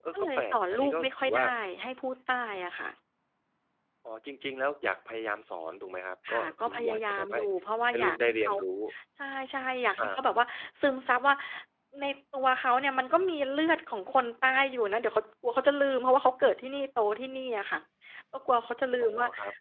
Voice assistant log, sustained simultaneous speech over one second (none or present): present